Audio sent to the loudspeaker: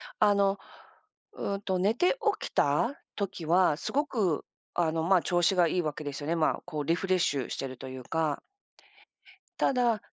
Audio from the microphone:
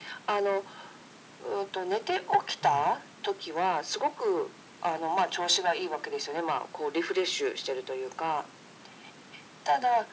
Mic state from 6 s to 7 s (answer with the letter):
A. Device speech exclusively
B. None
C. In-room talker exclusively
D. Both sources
A